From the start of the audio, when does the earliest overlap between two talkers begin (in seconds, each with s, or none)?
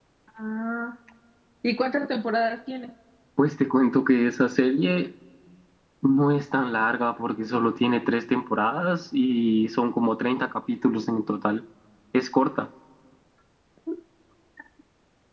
none